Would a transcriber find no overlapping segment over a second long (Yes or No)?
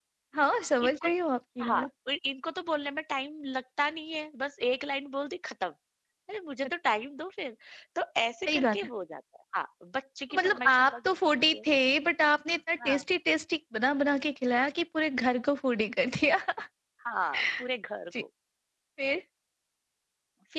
No